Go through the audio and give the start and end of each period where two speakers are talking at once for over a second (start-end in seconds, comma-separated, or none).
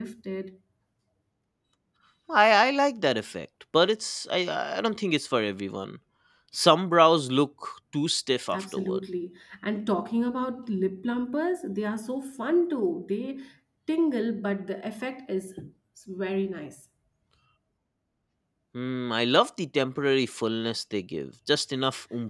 none